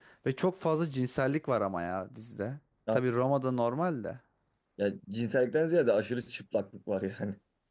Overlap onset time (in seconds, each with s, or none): none